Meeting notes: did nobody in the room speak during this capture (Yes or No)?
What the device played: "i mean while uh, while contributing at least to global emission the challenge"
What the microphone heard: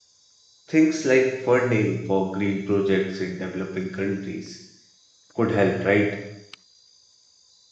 No